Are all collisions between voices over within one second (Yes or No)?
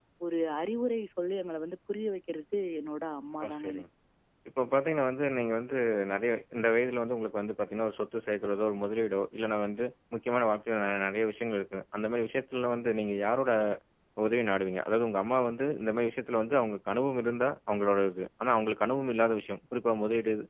Yes